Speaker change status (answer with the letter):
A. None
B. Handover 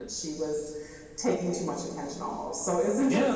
B